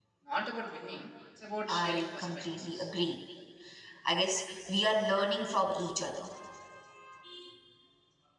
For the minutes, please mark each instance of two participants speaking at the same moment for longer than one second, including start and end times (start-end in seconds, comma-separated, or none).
1.7-2.9